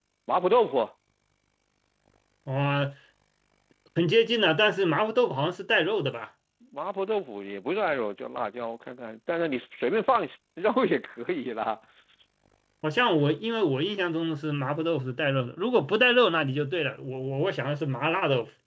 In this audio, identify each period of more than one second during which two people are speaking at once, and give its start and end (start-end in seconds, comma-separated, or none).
none